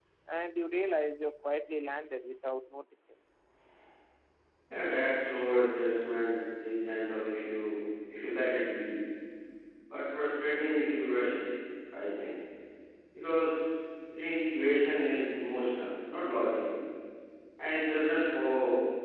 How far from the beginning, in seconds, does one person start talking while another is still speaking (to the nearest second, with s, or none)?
none